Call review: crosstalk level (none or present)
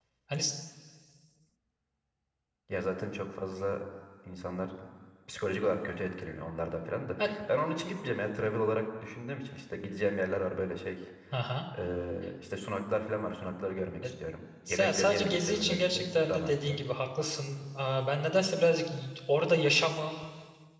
present